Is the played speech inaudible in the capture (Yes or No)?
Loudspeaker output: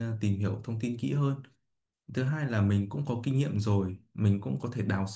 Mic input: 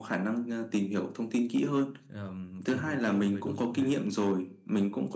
No